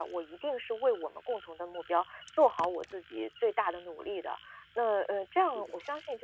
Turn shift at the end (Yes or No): No